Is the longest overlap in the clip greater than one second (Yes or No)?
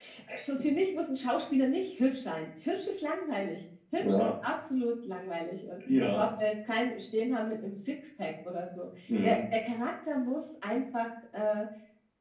No